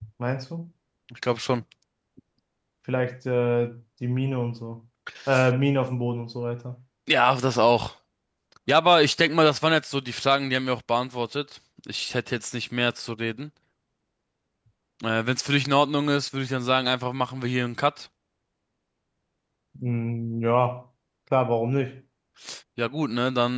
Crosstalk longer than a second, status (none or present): none